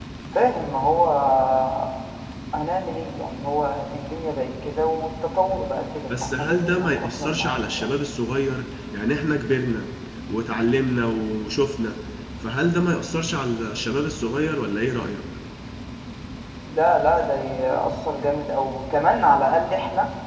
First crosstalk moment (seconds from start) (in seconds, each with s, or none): 6.1 s